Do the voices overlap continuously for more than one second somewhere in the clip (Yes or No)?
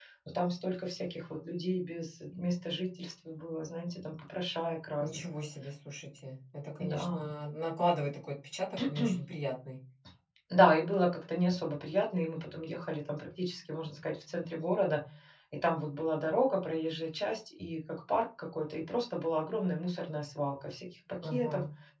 No